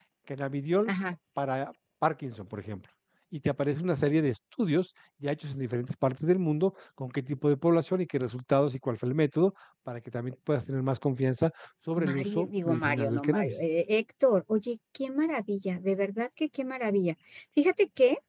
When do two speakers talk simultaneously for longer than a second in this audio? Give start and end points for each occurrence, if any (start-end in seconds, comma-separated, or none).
12.0-13.6